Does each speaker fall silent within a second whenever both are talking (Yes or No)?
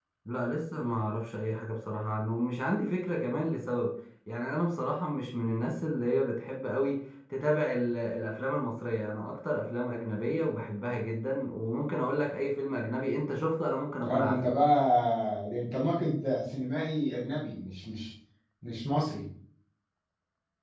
Yes